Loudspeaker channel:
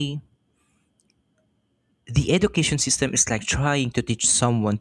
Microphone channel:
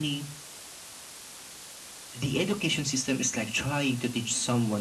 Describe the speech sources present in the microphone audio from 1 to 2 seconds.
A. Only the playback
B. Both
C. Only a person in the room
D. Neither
D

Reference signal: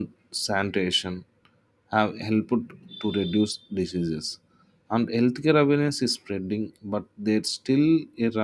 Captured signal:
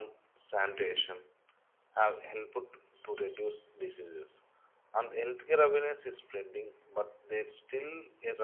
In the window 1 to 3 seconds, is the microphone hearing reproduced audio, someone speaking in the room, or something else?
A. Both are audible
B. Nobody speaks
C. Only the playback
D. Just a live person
C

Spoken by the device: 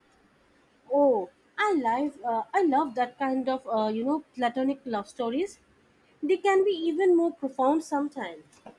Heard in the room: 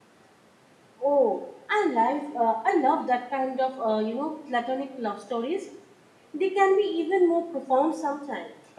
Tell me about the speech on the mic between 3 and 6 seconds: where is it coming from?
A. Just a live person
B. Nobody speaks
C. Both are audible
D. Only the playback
D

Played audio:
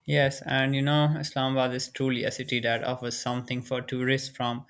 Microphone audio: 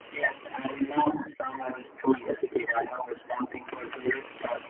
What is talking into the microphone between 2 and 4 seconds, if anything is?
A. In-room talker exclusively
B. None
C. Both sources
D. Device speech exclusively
D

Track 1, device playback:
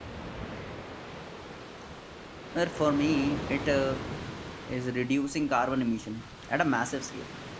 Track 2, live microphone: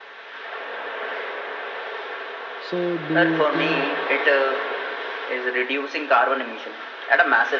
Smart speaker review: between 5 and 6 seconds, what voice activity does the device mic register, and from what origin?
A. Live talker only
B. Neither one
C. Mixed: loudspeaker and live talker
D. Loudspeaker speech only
D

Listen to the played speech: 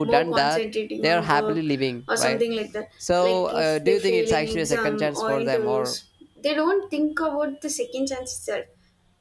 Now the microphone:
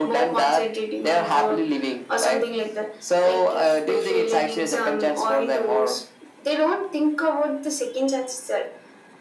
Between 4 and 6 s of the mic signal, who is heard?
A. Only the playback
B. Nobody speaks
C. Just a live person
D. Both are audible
A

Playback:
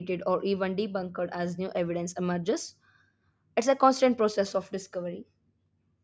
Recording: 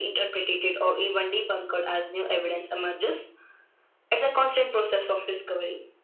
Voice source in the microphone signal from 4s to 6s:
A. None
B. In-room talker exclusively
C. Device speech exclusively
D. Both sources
C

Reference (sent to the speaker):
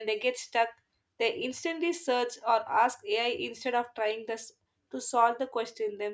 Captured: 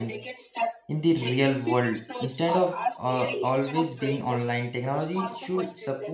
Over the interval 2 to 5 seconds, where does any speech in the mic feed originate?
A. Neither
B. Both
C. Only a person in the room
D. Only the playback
B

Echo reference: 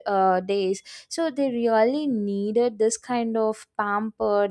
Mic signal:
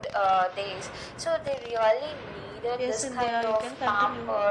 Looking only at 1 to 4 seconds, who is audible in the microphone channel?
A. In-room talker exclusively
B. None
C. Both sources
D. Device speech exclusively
C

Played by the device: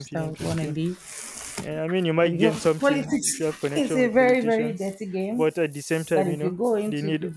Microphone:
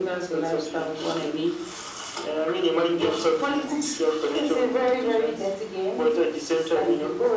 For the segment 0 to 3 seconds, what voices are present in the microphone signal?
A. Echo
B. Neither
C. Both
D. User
A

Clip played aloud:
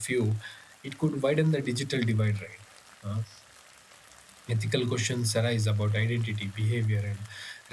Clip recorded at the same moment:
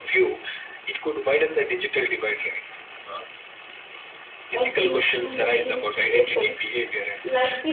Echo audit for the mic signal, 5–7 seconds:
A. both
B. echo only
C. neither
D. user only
A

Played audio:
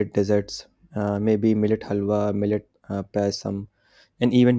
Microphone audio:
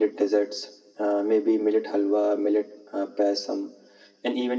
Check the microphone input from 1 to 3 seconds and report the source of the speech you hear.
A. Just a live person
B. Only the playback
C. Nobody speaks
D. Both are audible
B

